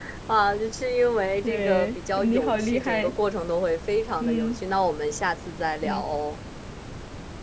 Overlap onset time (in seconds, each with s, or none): 1.4 s